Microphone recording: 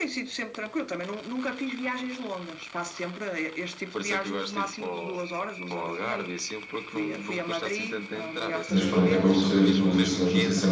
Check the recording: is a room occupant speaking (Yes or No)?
Yes